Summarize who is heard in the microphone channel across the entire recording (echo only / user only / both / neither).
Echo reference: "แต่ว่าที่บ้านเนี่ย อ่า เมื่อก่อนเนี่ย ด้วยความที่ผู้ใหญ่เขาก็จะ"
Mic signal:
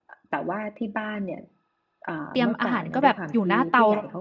both